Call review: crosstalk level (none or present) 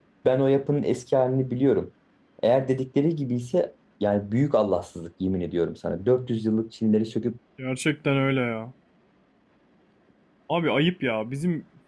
none